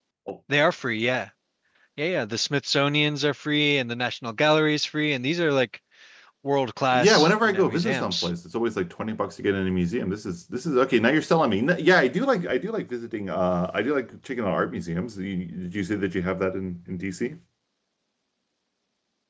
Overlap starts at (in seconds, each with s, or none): 7.0 s